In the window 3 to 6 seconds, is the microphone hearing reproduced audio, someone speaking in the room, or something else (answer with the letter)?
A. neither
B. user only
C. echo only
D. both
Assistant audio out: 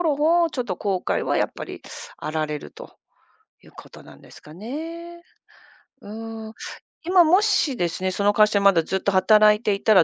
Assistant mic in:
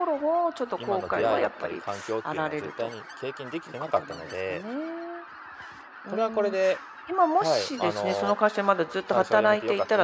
D